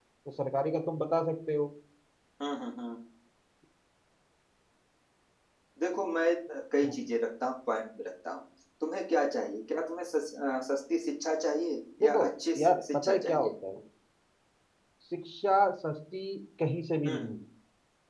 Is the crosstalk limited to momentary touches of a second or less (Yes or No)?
No